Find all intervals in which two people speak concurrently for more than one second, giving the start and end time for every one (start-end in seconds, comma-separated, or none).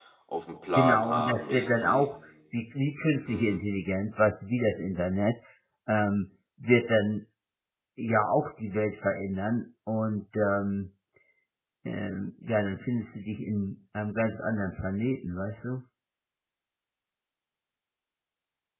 0.8-2.1